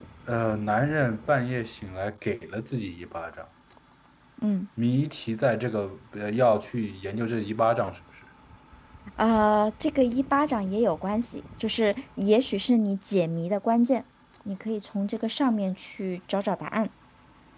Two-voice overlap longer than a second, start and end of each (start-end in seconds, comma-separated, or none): none